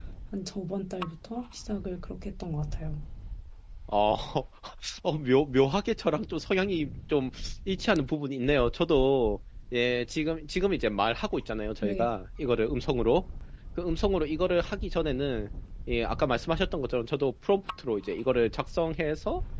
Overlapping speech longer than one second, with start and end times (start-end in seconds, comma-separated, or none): none